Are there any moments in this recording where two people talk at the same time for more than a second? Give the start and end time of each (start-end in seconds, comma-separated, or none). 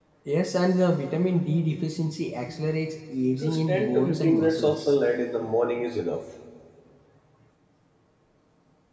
3.4-4.9